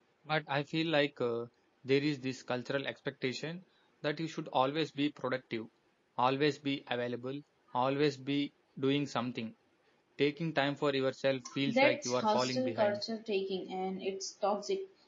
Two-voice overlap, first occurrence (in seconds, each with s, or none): 11.4 s